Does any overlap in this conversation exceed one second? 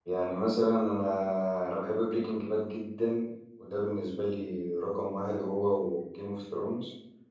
No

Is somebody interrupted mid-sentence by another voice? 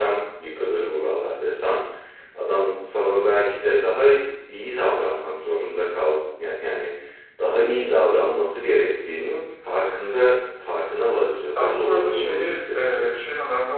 Yes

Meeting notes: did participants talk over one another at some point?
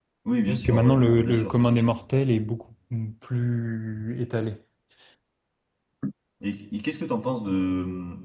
Yes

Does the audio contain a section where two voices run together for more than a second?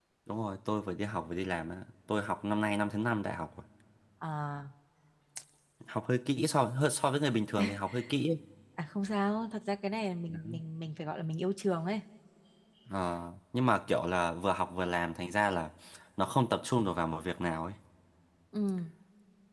No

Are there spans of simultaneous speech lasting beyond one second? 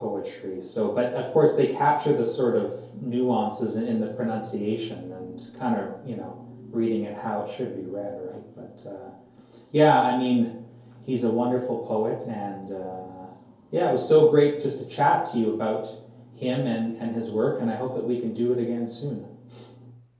No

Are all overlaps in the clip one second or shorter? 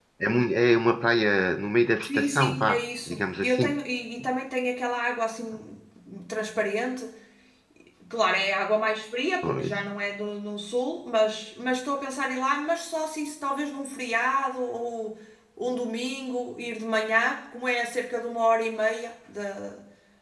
No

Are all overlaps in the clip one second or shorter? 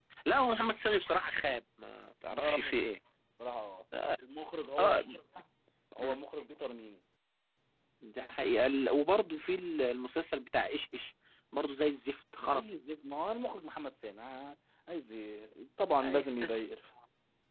Yes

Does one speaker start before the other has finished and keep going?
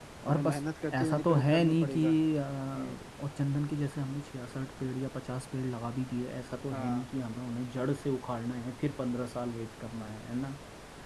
Yes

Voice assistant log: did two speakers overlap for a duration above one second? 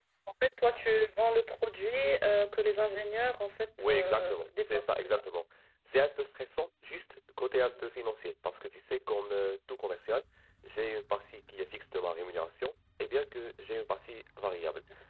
Yes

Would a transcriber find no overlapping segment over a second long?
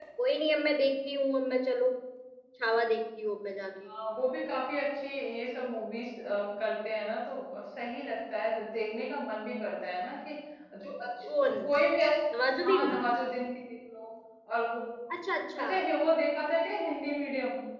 Yes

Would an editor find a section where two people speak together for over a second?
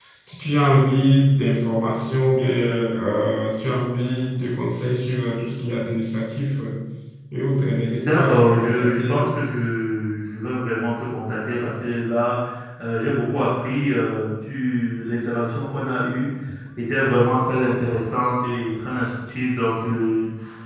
Yes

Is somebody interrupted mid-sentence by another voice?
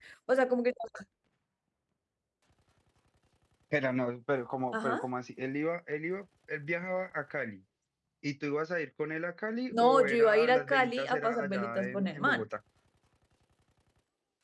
Yes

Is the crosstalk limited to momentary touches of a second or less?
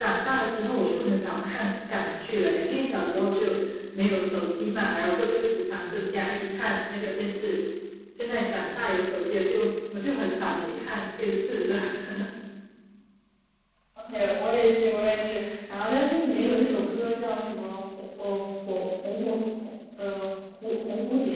Yes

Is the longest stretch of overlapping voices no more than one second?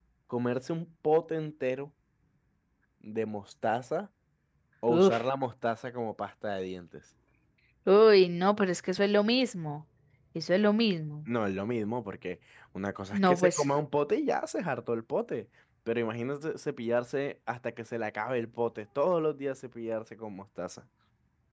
Yes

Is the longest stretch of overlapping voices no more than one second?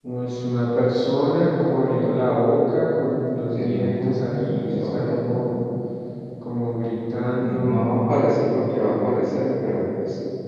No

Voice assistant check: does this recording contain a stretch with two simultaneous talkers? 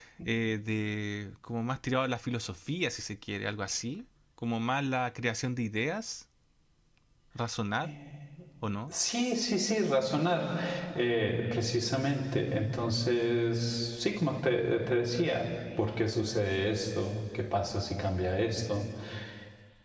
No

